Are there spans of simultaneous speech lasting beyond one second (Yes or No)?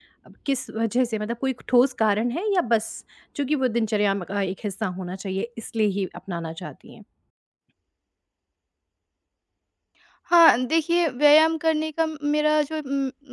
No